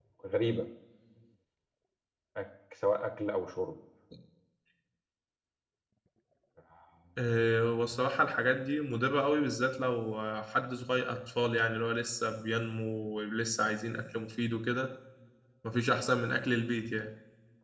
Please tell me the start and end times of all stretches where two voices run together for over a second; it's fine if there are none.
none

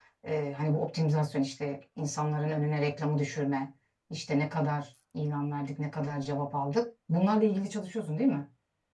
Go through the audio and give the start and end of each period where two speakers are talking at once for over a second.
none

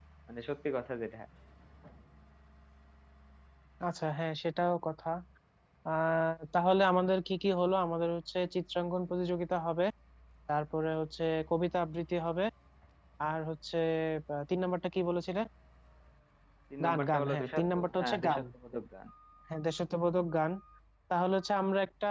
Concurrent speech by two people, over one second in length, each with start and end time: 16.8-18.4

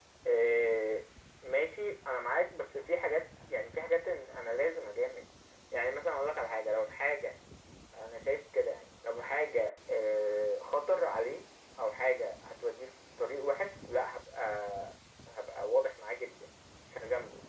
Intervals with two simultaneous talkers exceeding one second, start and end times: none

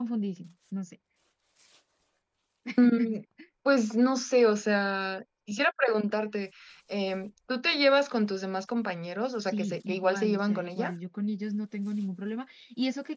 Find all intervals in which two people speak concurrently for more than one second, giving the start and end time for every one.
9.5-10.9

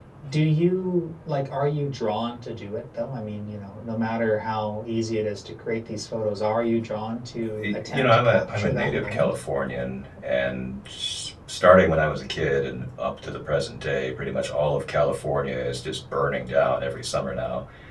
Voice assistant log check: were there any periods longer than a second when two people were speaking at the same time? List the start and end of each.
7.6-9.3

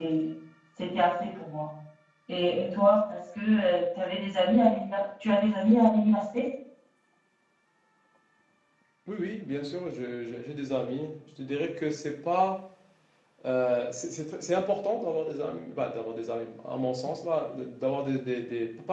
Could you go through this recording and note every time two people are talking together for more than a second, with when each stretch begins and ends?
none

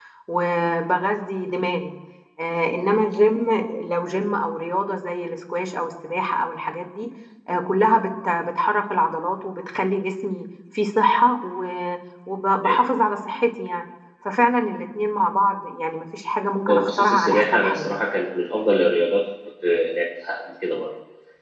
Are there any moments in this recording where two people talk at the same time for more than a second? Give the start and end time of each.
16.7-17.9

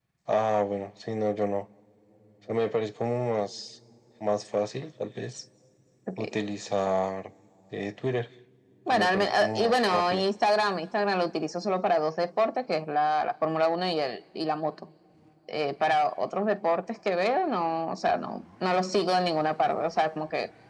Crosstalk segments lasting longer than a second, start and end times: 8.9-10.2

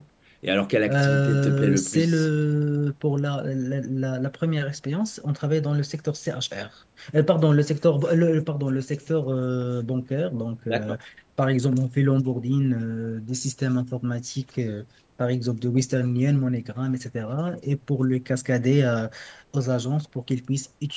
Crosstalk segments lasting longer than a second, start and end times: 0.9-2.3

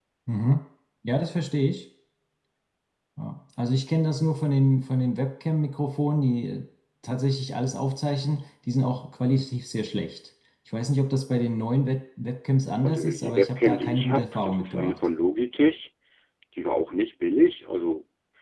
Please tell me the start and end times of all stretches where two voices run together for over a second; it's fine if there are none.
12.8-15.0

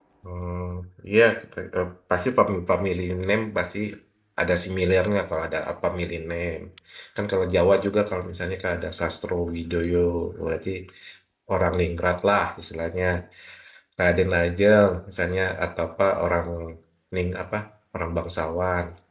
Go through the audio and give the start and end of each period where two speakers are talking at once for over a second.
none

